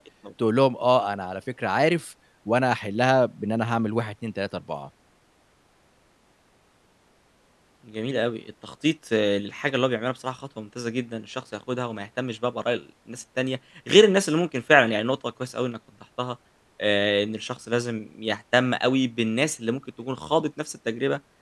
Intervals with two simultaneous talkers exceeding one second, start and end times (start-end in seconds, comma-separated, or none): none